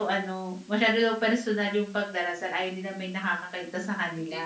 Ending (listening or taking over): taking over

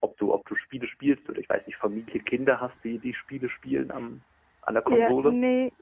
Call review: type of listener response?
taking over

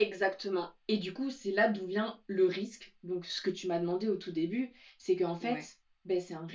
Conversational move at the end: listening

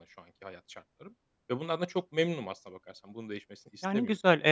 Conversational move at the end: taking over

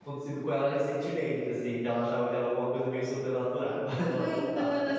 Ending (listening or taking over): taking over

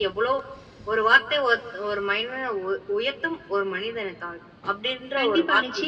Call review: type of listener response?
taking over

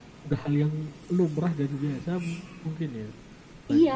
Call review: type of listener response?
taking over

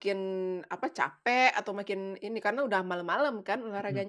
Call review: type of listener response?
taking over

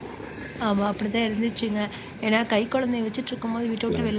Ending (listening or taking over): listening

